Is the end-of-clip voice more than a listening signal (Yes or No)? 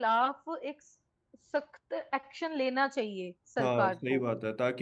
Yes